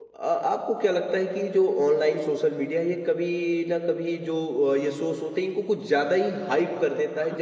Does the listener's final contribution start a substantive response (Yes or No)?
No